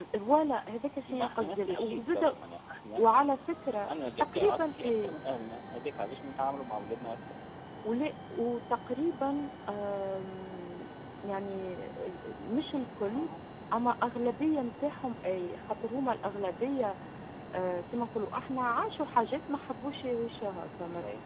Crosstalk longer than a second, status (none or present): present